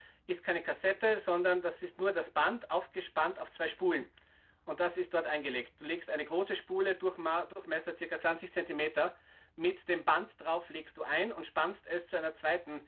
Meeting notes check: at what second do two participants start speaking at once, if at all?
none

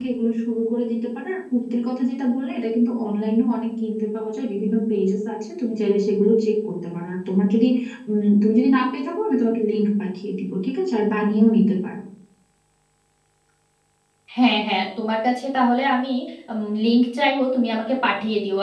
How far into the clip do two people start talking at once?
none

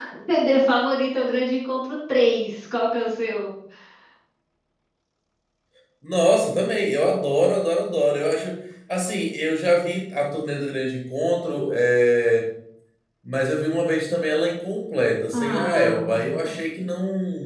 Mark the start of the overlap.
15 s

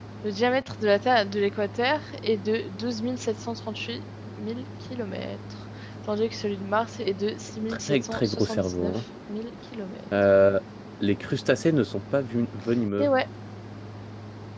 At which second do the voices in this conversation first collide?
8 s

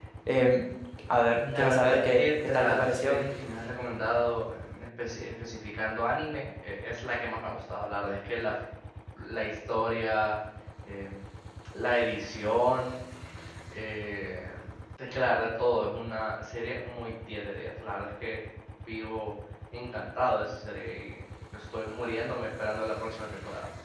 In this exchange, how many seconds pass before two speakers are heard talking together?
2 s

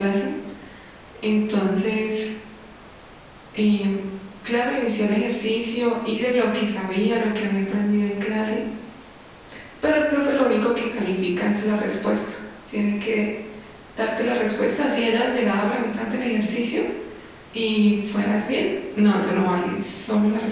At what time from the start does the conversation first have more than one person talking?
none

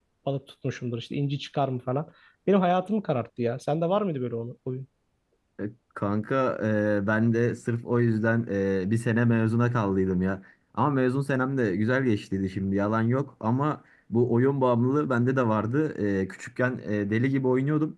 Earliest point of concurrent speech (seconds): none

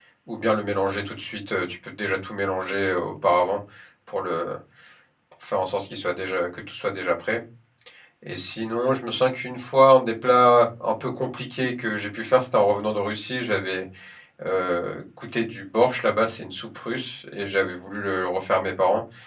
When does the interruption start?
none

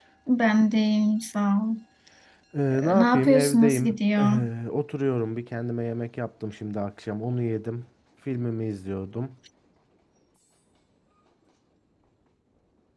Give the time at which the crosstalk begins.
3 s

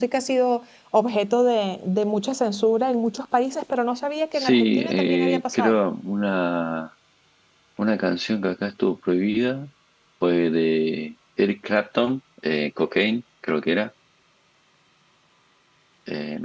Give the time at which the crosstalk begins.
4 s

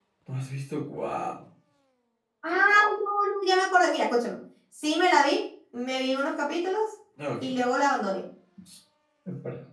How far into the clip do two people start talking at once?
none

